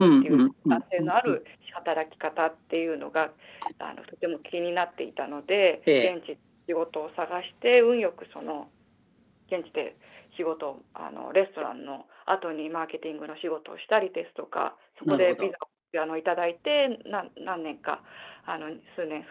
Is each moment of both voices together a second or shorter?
No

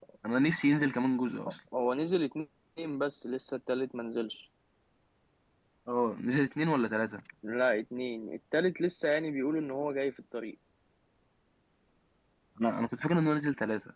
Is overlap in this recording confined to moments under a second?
Yes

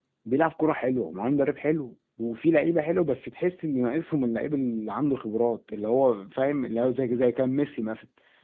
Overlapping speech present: No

